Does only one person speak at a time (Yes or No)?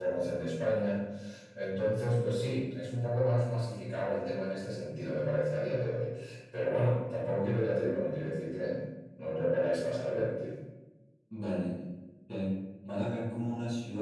Yes